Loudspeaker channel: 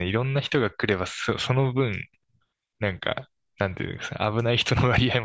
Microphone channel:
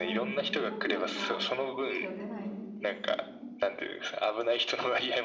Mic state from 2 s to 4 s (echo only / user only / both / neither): both